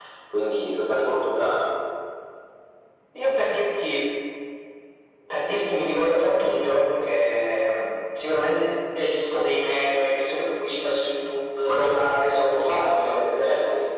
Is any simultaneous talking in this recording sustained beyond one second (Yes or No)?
Yes